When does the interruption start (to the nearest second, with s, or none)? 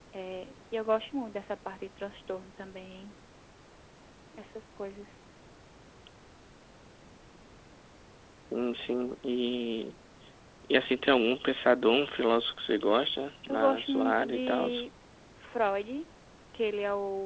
13 s